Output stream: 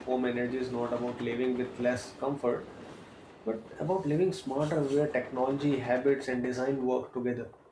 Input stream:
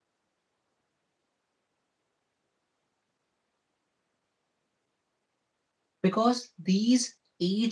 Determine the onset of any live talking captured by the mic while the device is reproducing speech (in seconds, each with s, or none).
6.0 s